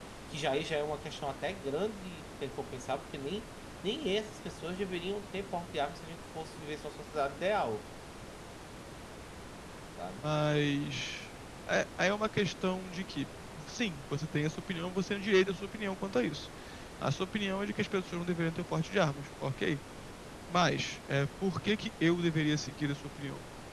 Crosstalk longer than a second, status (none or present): none